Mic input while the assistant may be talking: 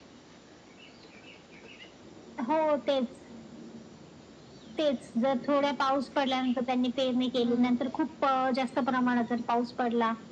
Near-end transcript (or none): हम्म